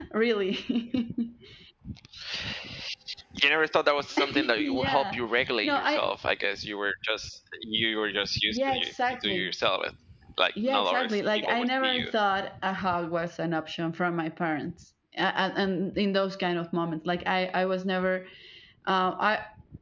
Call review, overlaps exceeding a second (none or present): present